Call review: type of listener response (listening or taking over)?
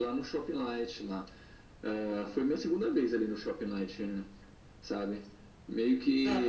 listening